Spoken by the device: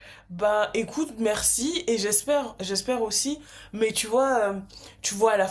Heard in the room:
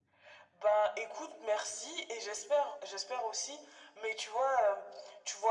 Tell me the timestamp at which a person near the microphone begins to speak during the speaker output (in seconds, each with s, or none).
none